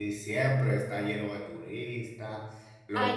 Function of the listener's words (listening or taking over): listening